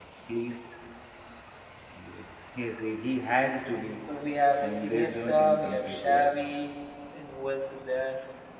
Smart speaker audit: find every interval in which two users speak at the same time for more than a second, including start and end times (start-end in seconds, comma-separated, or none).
4.6-6.5